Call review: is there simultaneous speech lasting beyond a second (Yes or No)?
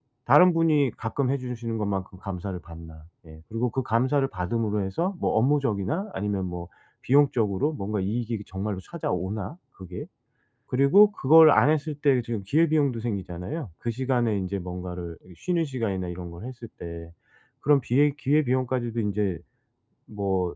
No